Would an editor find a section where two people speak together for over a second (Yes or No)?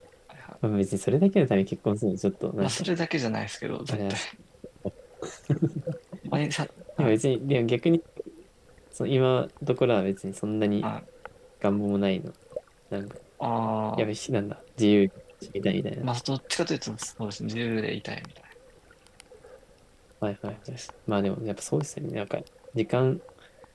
No